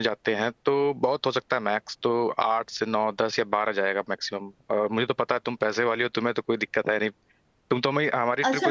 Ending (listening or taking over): taking over